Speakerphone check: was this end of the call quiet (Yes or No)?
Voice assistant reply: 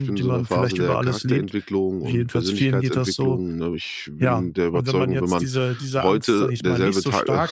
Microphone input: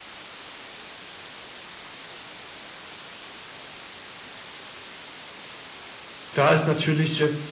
No